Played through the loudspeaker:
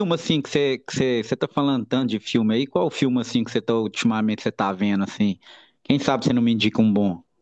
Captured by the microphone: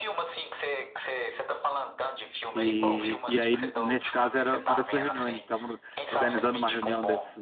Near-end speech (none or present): present